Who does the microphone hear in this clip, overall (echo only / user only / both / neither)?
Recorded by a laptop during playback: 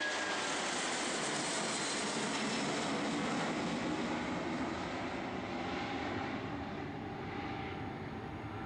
neither